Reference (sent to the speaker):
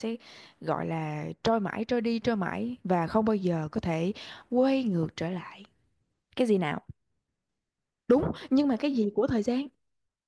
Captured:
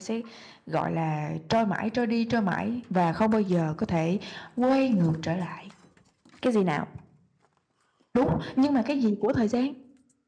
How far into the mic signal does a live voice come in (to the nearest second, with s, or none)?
none